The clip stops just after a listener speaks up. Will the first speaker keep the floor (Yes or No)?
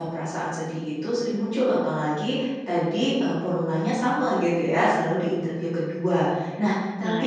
Yes